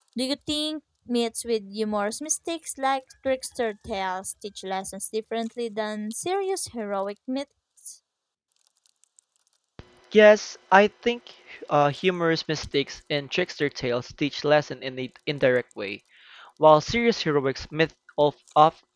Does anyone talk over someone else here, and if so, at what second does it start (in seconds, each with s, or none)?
none